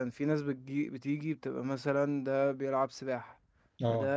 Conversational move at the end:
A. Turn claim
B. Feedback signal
B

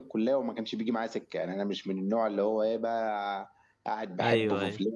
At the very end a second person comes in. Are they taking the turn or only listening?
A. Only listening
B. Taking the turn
A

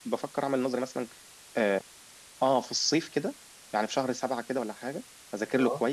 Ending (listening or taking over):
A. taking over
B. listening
B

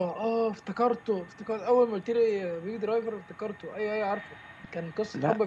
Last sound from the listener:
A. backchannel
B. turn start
A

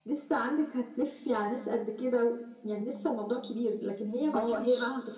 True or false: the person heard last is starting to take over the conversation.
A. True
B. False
A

